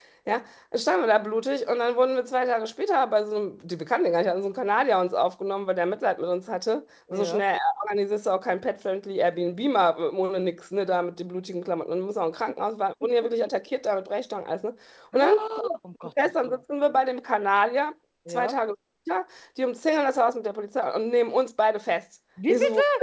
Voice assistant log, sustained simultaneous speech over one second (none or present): none